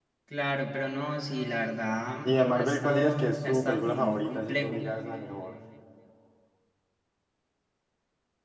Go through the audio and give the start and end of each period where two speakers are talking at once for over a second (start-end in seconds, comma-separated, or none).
2.2-4.8